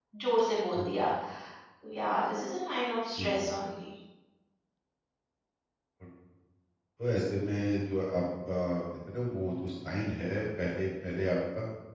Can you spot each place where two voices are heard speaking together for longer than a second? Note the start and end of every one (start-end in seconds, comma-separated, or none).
none